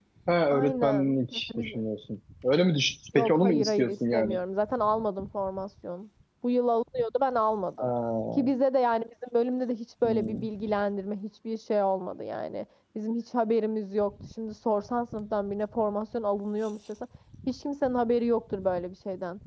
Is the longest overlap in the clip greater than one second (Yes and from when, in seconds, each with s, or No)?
Yes, from 0.5 s